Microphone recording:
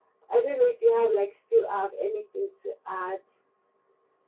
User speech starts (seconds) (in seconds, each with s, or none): none